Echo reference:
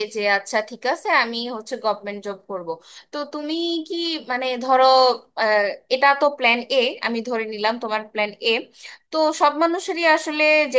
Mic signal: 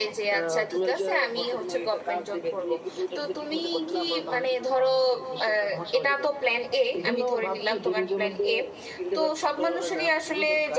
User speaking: Yes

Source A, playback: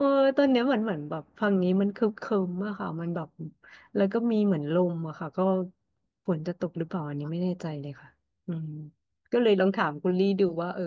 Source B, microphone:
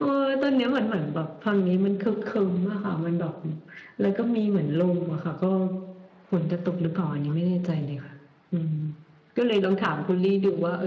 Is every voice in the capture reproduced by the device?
Yes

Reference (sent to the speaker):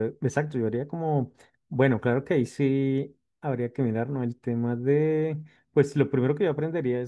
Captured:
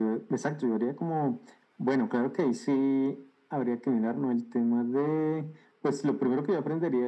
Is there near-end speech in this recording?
No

